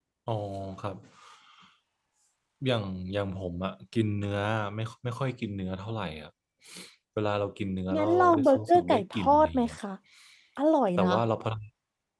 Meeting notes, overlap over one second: present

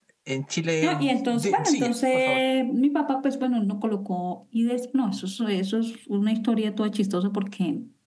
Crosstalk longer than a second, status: present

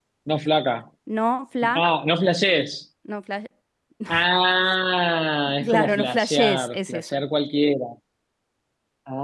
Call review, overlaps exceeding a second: present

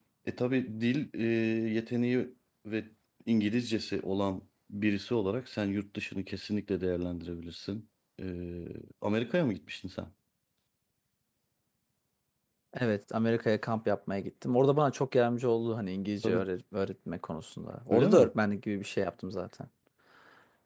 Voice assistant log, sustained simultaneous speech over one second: none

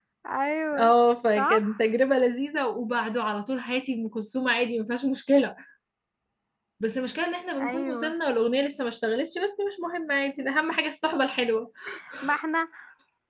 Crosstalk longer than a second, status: none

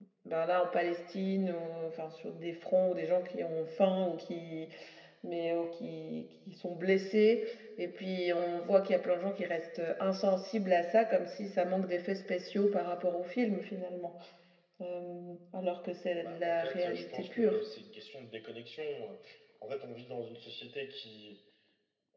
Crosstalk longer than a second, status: present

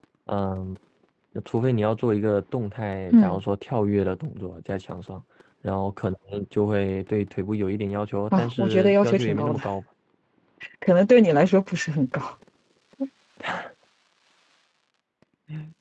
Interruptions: present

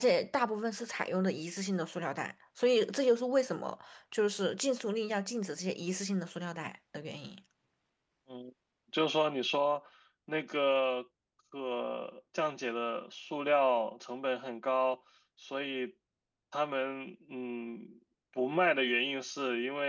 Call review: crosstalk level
none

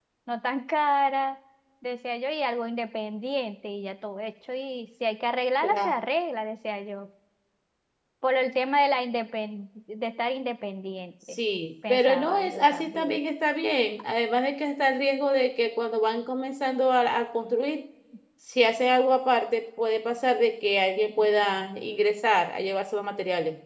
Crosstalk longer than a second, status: present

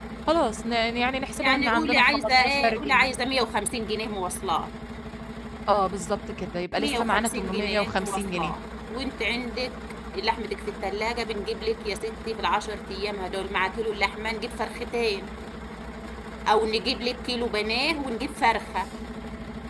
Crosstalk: present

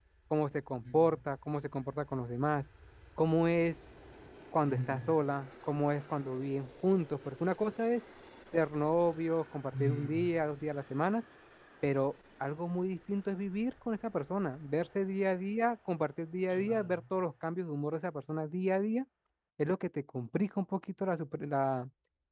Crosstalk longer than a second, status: none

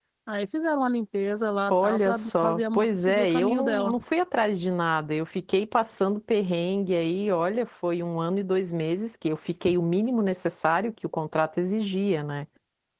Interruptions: present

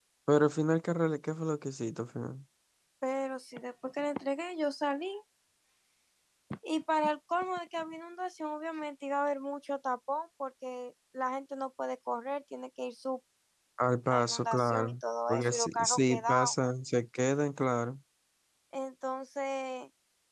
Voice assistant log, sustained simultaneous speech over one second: present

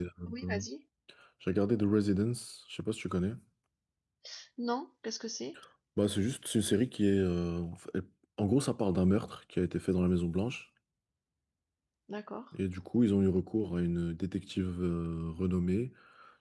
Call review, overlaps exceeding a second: none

